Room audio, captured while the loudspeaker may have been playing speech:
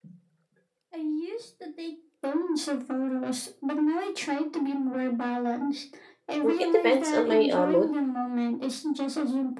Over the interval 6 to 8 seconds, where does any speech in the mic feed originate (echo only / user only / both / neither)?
both